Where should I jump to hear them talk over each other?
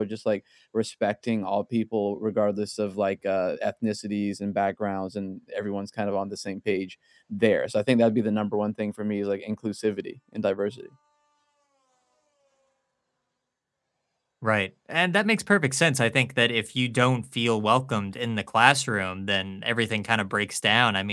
none

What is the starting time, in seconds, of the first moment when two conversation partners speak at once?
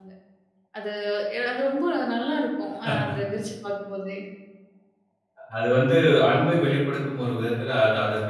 none

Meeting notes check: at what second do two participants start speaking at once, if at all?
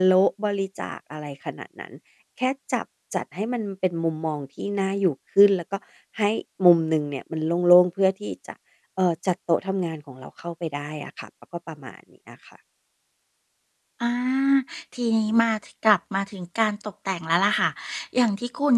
none

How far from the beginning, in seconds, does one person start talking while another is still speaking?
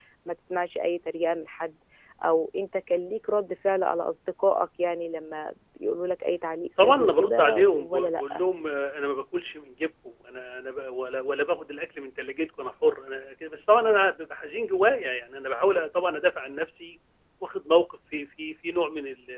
7 s

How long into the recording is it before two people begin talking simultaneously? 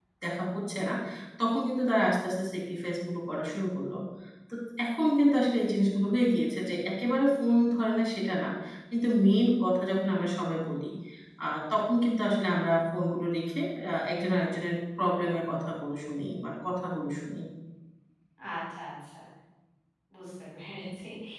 none

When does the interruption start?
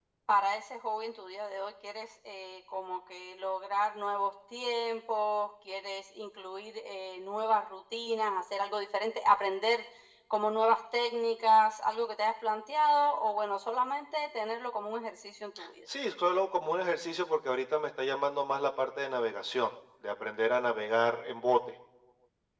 none

